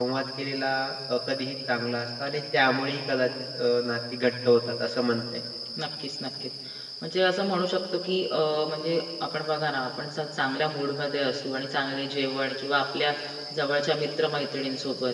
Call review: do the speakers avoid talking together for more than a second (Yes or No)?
Yes